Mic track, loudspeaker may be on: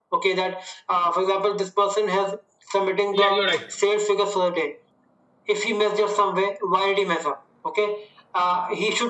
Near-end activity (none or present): present